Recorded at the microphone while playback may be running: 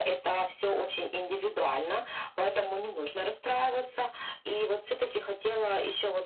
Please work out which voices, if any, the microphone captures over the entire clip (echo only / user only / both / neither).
echo only